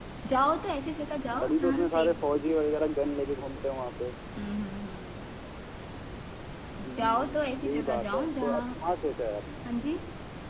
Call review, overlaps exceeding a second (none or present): present